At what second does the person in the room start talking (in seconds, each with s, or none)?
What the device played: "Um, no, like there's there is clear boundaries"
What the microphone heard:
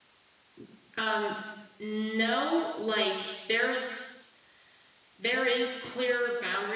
none